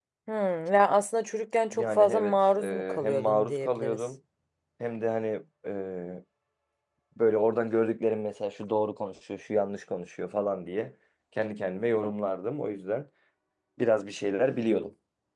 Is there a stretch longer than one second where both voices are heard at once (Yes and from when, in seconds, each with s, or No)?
Yes, from 1.7 s